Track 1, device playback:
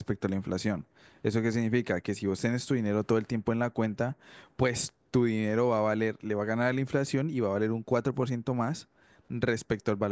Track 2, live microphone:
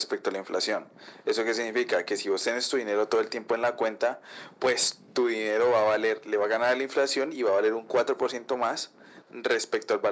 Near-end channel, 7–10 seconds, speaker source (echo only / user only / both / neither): echo only